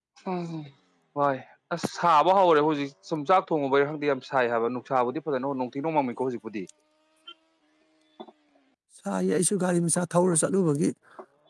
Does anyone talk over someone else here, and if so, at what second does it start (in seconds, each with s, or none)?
none